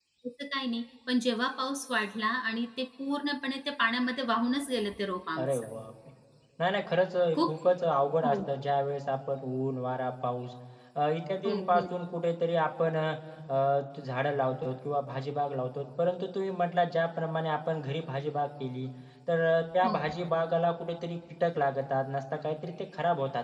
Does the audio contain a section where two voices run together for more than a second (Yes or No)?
No